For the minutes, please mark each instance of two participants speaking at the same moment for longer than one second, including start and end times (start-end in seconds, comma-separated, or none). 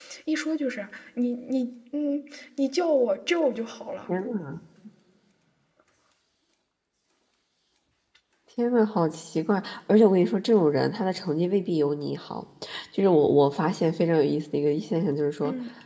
none